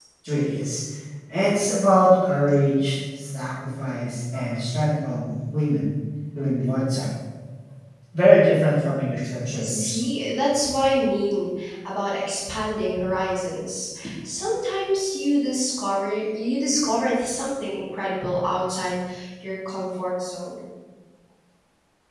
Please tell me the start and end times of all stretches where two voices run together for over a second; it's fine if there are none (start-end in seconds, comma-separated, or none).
none